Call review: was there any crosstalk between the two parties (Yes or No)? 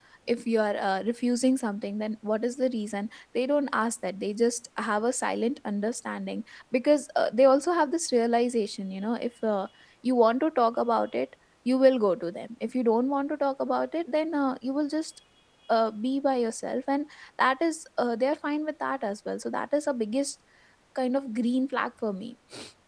No